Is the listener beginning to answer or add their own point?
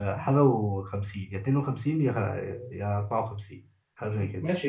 Yes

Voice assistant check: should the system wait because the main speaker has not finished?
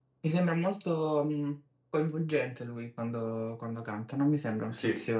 Yes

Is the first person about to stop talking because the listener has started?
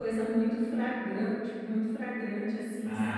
Yes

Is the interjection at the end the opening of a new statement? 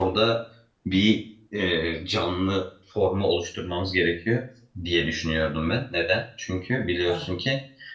No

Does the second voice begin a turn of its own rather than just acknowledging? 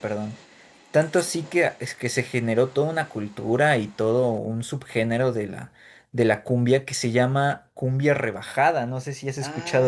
Yes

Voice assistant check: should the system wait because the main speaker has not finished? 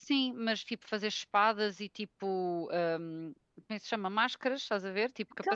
No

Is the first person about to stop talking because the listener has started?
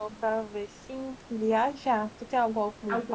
No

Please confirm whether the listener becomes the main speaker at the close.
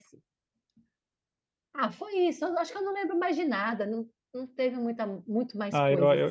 Yes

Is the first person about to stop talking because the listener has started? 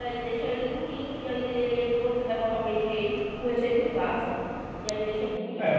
Yes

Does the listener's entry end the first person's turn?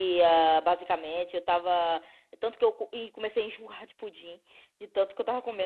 No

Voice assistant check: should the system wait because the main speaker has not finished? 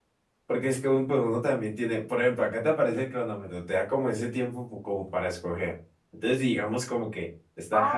No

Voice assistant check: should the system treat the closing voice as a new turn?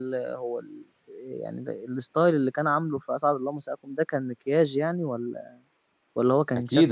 Yes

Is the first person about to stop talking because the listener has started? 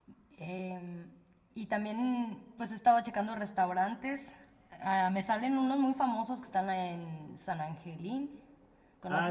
Yes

